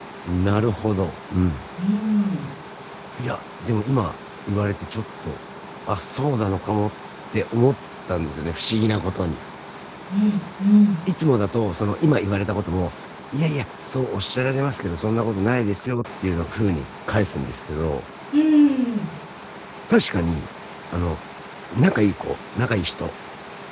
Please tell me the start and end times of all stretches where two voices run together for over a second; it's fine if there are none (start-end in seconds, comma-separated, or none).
none